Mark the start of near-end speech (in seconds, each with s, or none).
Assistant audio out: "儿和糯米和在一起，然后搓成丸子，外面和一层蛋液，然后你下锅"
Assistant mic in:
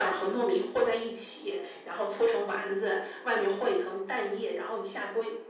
none